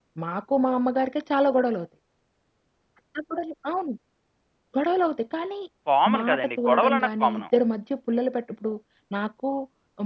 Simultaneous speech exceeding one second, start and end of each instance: 6.2-7.4

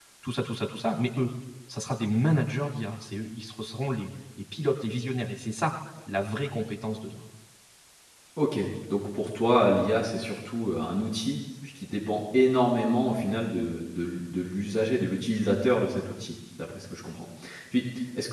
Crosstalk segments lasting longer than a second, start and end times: none

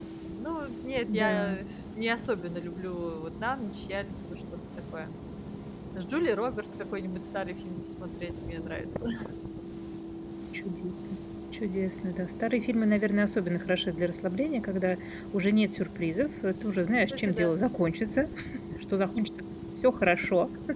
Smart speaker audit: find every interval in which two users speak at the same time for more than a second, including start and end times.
none

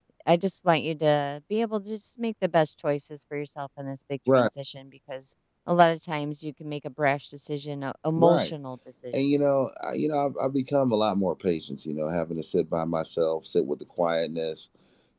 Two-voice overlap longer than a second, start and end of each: none

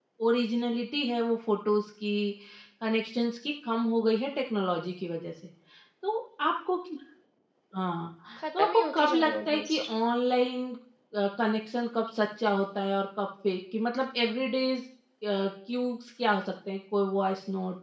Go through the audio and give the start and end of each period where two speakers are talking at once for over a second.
8.6-9.9

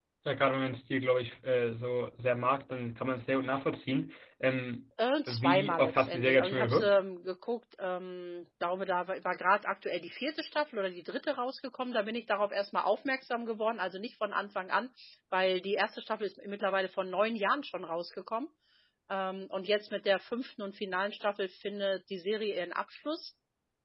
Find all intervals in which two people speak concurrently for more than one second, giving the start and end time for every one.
5.3-7.0

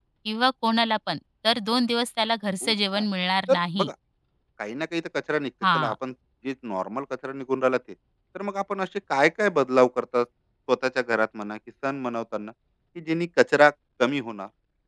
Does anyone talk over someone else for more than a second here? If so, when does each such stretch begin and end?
none

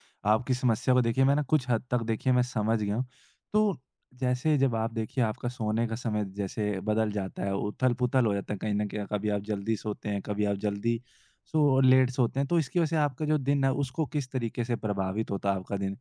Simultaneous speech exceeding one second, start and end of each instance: none

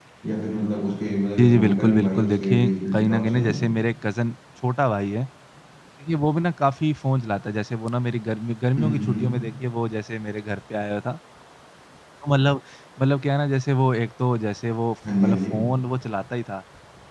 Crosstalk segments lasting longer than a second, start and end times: 1.4-3.5

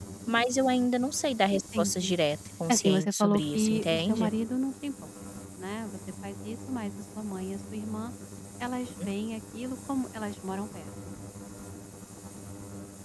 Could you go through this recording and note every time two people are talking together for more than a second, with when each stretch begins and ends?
2.7-4.3

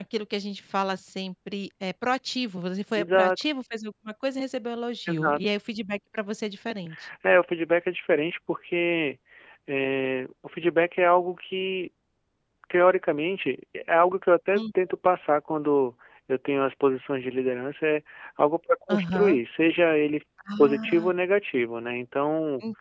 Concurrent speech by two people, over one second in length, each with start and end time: none

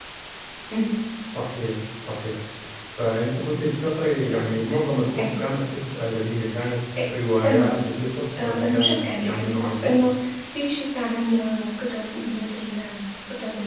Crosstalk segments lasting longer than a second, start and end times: 8.4-10.0

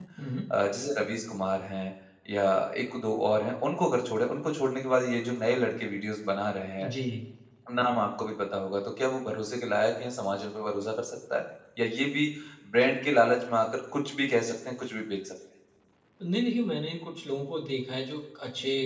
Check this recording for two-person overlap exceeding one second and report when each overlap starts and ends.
none

